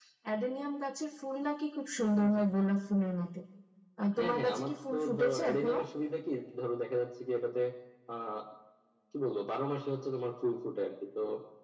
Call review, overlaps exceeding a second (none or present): present